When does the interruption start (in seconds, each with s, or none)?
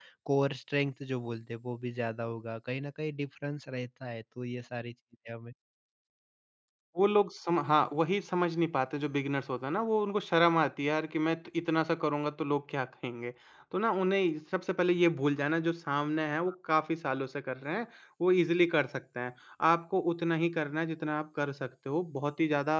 none